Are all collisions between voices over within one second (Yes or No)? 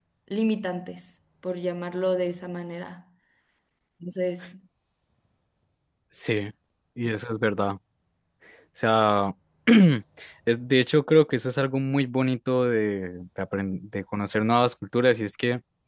Yes